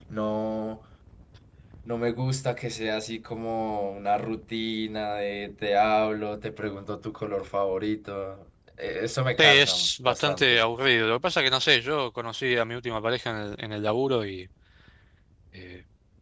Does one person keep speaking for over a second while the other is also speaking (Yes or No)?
Yes